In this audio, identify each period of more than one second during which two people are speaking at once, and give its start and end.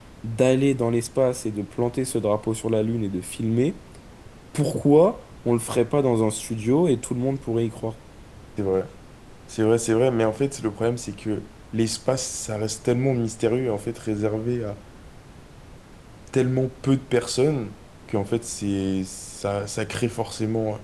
none

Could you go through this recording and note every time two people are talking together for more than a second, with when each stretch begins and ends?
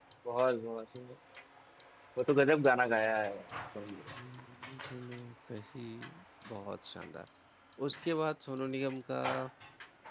none

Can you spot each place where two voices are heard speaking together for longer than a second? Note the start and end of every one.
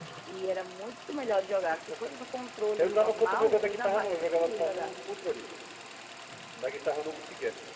2.8-4.9

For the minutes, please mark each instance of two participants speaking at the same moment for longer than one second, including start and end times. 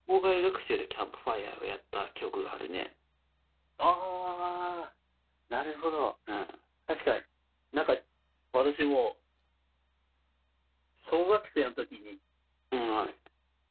none

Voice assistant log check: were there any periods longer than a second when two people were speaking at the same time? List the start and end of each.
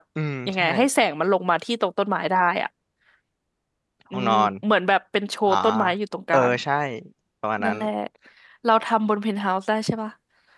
none

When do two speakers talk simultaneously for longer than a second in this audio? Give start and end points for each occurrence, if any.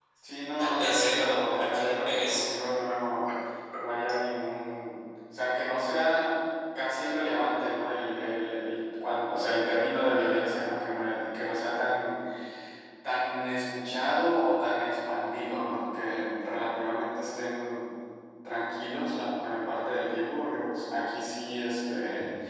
0.6-2.4

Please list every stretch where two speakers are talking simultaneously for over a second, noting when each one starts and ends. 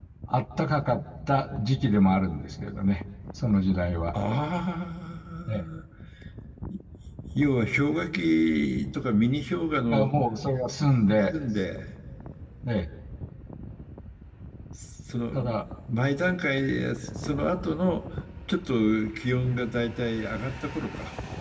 none

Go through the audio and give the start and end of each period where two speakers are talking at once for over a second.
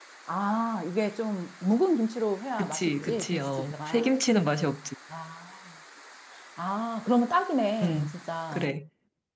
2.6-4.1

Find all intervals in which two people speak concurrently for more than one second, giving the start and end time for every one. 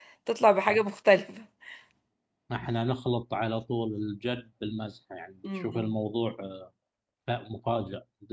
none

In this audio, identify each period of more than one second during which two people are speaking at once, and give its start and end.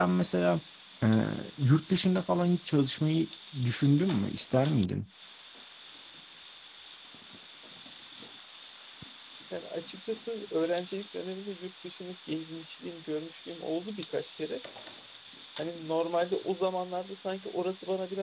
none

